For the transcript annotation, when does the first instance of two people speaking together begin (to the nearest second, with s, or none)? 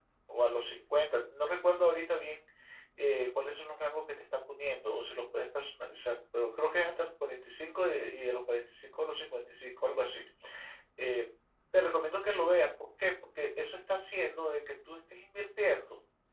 none